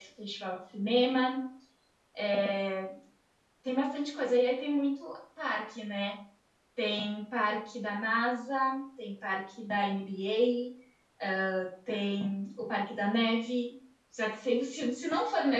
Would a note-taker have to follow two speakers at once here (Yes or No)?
No